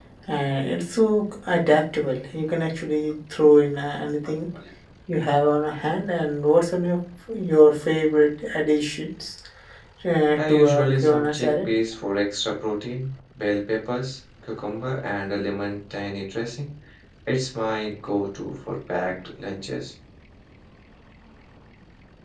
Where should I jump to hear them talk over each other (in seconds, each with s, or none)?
10.4 s